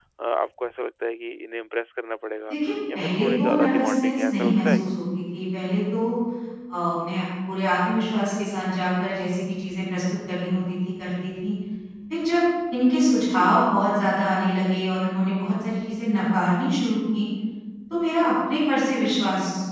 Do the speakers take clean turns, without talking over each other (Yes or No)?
No